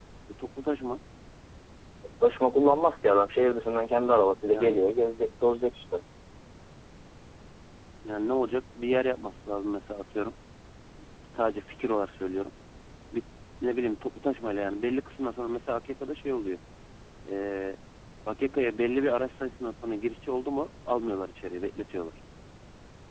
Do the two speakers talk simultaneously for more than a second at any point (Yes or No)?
No